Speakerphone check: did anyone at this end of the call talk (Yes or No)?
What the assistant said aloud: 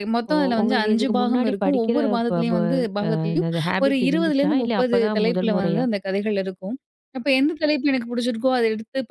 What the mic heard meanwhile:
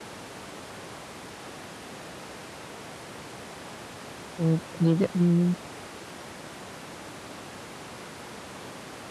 Yes